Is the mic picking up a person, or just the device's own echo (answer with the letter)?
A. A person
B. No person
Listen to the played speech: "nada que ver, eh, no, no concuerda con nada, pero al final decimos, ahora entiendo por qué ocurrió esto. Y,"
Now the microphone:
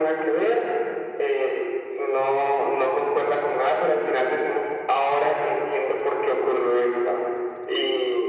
B